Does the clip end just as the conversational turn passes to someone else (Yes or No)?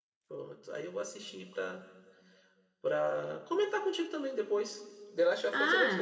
Yes